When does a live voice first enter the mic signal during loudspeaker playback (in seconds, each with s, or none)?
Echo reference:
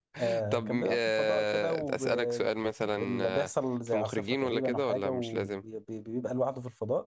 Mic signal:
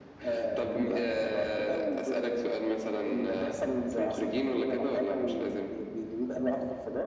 none